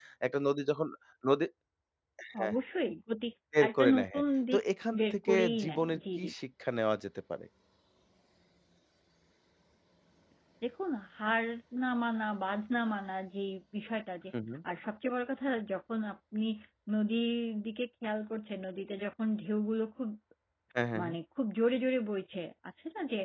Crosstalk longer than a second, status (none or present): present